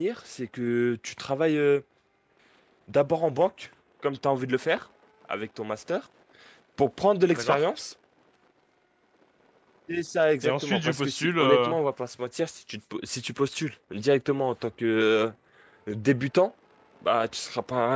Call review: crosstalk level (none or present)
present